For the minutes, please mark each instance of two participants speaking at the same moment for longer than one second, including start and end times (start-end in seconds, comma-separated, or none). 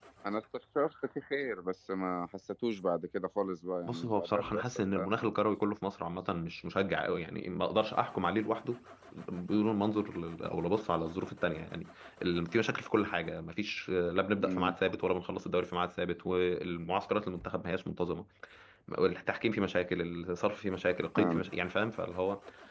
3.9-5.3